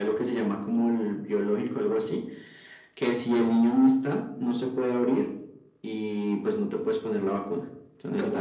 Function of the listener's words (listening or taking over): taking over